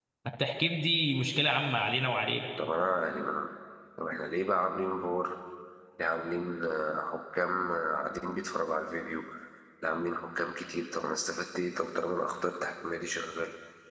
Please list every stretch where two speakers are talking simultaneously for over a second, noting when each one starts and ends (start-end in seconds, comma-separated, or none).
none